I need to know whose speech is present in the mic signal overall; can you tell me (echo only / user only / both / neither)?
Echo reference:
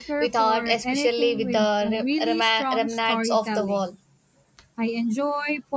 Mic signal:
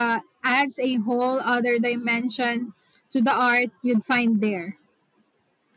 user only